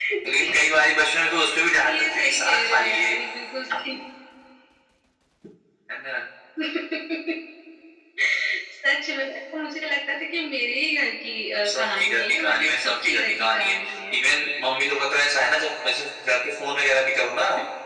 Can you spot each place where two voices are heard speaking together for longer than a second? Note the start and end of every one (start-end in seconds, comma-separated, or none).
1.7-3.1, 11.7-13.8